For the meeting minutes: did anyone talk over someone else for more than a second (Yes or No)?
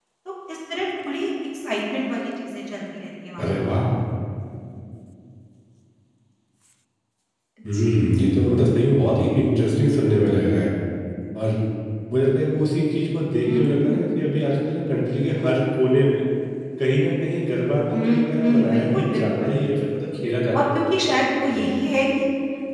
Yes